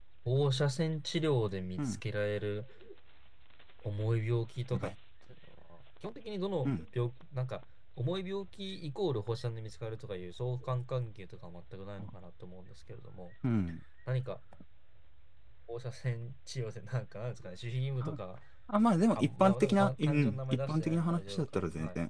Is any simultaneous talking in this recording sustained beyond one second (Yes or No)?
Yes